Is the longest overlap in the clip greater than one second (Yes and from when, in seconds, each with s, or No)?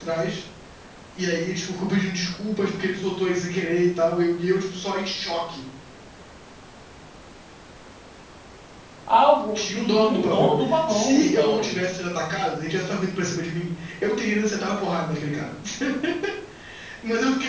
Yes, from 9.5 s